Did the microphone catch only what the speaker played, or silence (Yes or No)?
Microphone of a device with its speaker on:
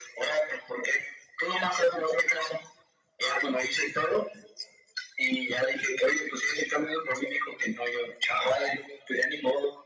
Yes